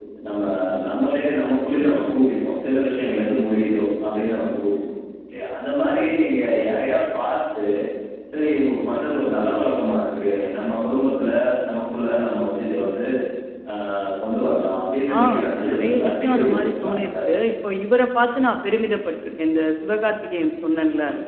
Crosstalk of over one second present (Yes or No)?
Yes